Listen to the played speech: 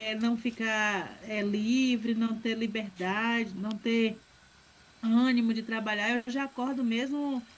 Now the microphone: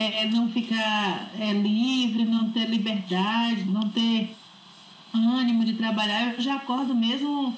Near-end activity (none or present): none